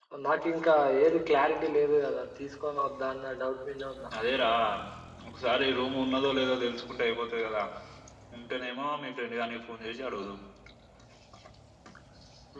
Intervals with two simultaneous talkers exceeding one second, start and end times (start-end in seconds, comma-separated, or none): none